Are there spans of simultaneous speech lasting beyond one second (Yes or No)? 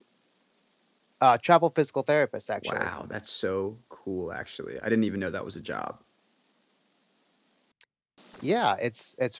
No